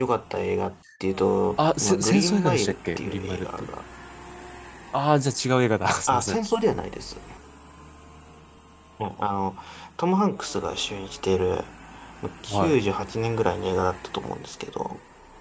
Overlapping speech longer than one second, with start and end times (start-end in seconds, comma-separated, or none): 1.6-3.7